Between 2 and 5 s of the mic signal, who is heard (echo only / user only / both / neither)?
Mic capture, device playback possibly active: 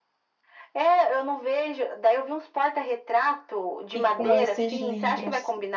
both